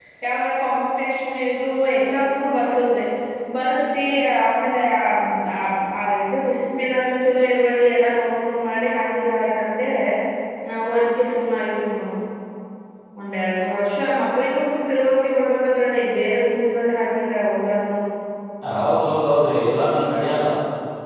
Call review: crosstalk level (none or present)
none